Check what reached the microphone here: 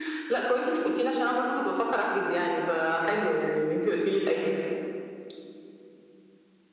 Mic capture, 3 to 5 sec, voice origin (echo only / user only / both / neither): echo only